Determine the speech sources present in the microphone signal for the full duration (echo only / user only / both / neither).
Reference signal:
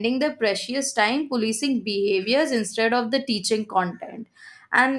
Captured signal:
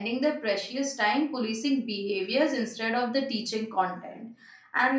echo only